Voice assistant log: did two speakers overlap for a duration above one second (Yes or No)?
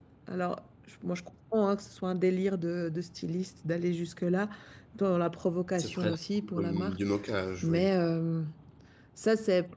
Yes